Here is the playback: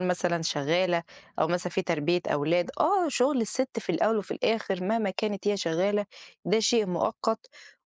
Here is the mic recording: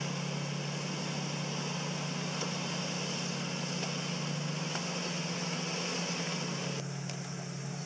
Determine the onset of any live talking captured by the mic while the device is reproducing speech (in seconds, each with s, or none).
none